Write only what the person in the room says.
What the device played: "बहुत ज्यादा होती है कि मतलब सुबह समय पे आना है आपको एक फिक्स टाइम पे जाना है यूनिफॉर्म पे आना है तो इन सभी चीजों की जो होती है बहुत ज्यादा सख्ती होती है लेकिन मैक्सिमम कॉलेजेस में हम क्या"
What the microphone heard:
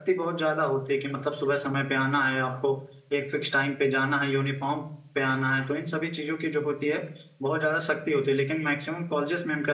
none

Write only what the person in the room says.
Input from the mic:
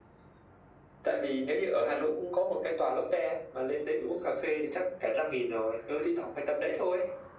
none

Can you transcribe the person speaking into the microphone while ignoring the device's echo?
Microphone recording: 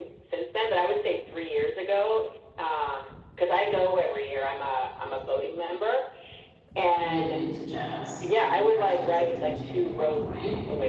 really into jazz he actually was a dj at one point

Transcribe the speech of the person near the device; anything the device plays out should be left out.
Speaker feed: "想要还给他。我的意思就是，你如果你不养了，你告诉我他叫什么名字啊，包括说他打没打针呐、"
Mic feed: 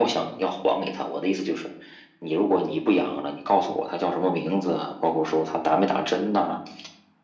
none

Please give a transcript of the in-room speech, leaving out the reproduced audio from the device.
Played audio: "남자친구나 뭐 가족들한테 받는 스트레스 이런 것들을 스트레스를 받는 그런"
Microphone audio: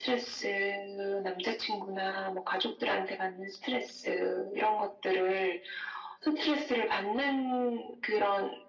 none

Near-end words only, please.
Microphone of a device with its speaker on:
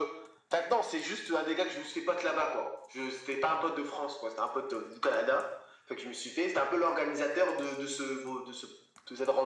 none

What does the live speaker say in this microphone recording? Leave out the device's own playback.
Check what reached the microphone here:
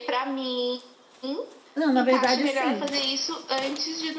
Não, na verdade, assim,

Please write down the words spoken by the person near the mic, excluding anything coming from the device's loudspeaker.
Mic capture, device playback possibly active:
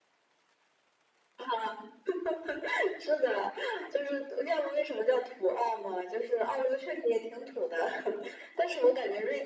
none

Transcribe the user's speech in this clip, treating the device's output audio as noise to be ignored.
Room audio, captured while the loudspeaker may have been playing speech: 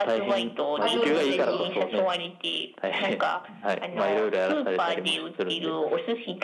あ、どうぞどうぞ。

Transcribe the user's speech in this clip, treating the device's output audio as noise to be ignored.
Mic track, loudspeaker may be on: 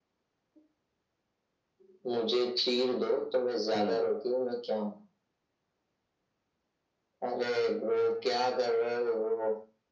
हम्म

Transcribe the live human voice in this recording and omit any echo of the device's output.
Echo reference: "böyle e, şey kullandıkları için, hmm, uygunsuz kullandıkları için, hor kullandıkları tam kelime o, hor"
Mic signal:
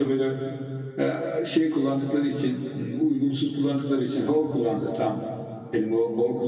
none

